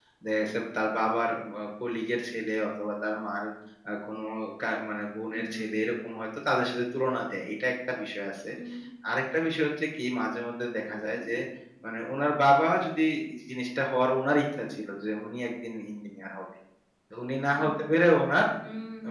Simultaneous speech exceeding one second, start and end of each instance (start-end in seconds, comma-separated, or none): none